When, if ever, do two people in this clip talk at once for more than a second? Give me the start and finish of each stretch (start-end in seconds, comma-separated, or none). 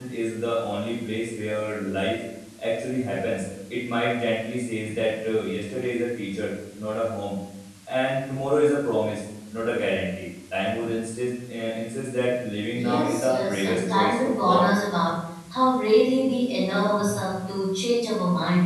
12.7-14.7